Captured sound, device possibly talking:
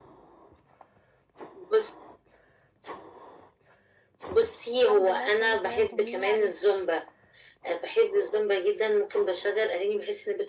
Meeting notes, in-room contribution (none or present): present